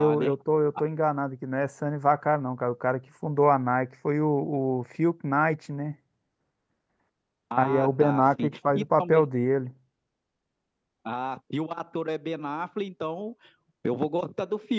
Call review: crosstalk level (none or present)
present